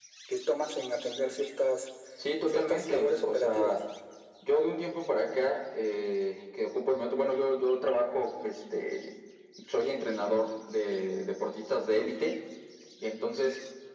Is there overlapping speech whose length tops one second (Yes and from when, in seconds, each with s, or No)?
Yes, from 2.5 s